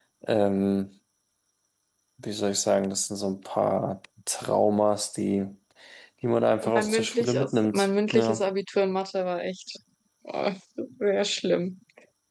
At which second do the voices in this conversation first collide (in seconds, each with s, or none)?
6.7 s